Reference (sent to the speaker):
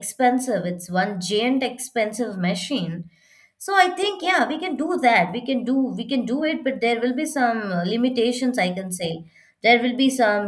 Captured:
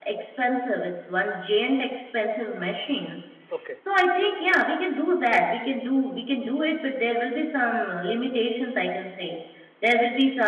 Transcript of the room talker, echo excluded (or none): okay